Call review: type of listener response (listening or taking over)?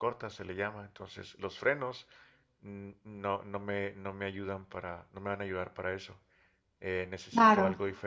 listening